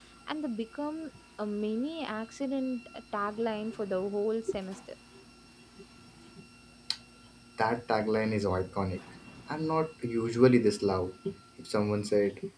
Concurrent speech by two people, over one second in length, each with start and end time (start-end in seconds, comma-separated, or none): none